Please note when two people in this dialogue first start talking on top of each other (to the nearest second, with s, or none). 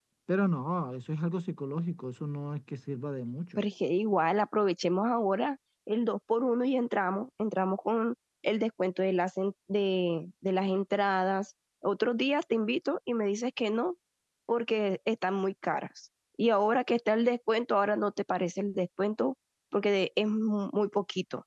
none